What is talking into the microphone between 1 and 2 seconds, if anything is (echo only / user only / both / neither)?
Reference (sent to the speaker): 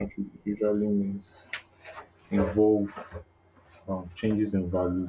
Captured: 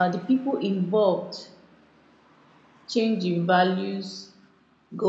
user only